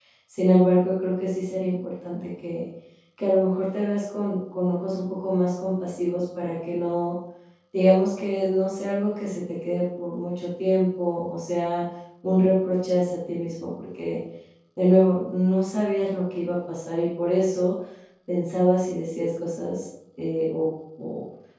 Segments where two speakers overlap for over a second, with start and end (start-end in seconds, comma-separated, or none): none